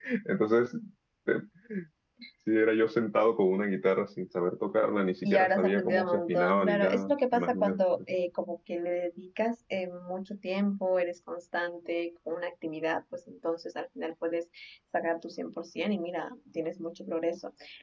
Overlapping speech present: Yes, from 5.2 s

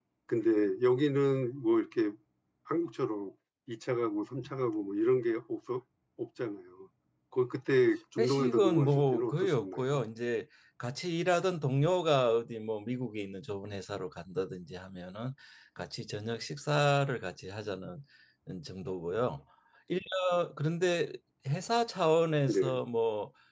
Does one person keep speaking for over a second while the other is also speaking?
Yes, from 8.2 s

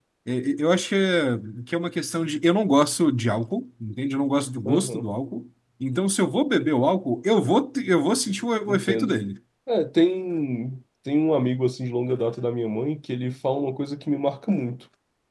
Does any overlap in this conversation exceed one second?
No

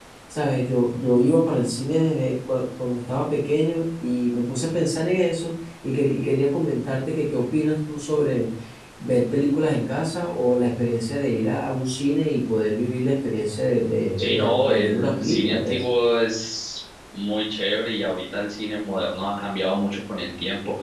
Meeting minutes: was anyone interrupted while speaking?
Yes, from 14.2 s

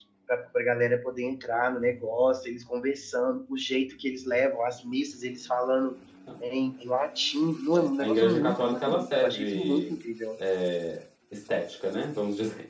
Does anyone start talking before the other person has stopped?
Yes, from 8.0 s

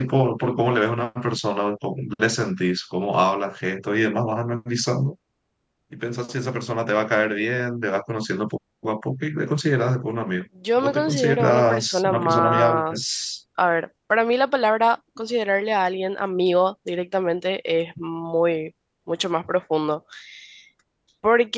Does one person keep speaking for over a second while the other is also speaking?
Yes, from 10.6 s

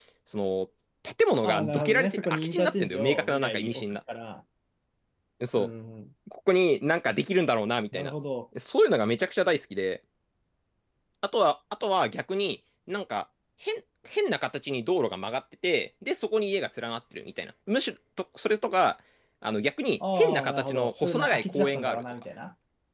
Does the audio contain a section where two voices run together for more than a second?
Yes, from 1.4 s

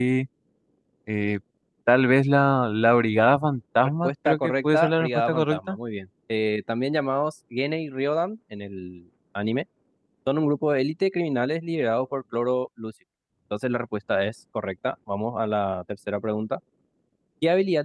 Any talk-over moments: Yes, from 4.0 s

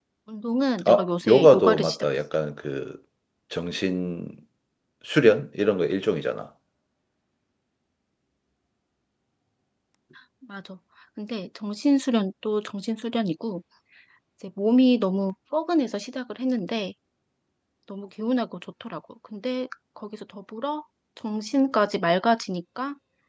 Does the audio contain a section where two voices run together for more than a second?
Yes, from 0.8 s

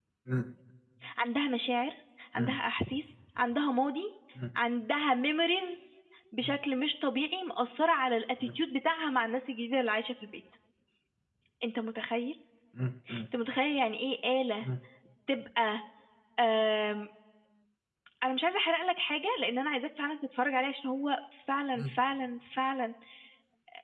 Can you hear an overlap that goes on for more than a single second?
No

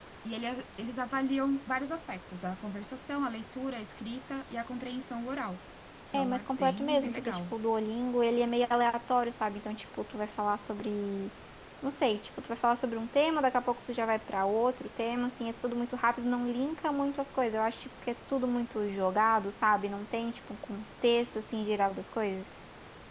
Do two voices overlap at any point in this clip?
Yes, from 6.1 s

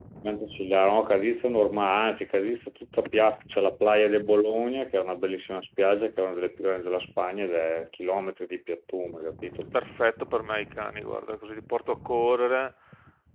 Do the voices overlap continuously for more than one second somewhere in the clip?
No

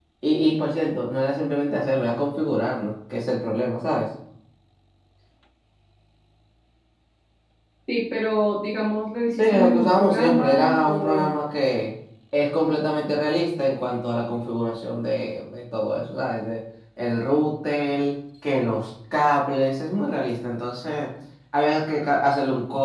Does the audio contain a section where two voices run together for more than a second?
Yes, from 9.4 s

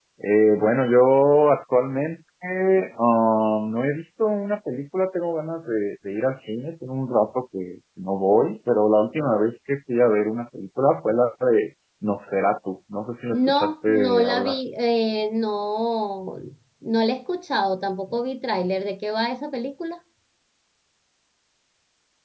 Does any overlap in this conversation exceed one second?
Yes, from 13.3 s

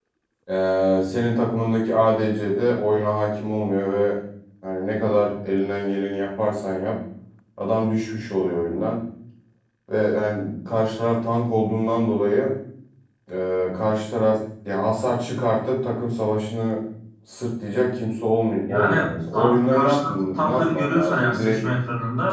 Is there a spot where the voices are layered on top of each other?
Yes, from 18.7 s

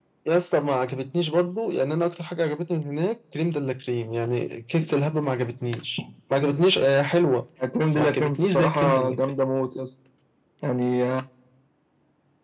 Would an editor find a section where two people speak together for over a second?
Yes, from 7.9 s

